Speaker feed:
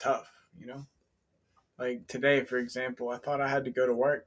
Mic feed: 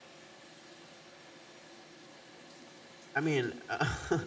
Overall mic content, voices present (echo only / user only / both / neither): user only